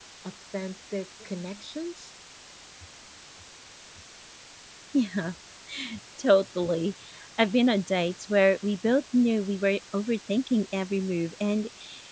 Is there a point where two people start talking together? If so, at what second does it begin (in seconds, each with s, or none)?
none